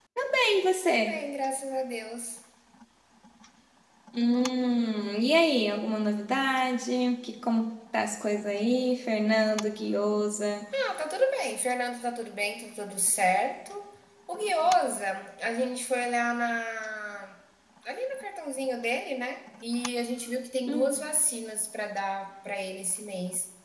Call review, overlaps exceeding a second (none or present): none